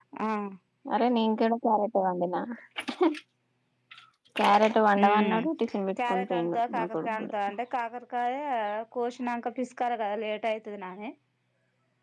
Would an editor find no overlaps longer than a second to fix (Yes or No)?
No